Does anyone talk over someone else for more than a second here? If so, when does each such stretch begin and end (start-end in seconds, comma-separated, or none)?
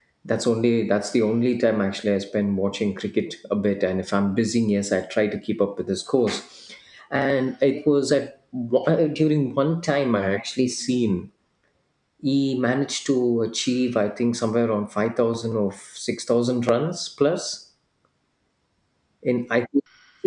none